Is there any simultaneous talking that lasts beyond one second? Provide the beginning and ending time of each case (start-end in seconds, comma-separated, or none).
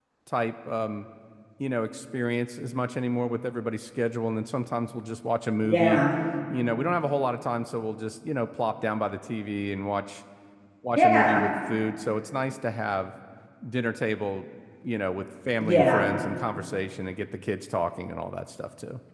none